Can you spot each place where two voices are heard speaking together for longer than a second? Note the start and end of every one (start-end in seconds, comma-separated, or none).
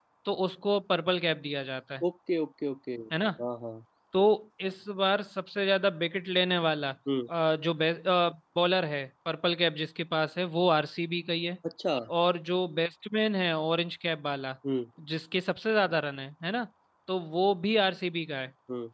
none